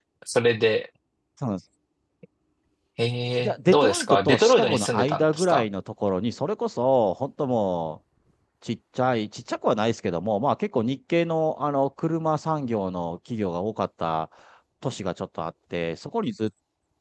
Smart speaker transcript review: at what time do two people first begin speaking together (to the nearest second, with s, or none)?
3 s